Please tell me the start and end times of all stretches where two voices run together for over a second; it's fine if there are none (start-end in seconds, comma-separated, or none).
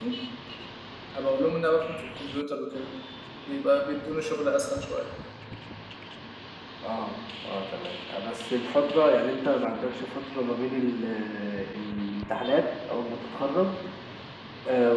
none